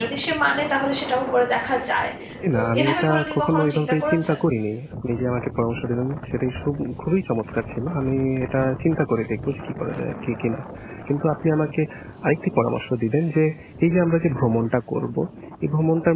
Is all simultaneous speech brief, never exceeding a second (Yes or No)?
No